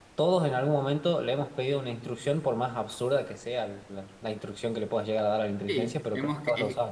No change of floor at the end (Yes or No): No